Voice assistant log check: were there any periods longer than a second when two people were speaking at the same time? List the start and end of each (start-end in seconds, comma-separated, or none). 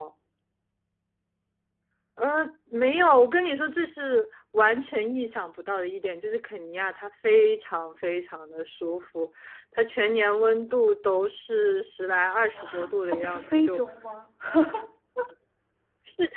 12.5-13.8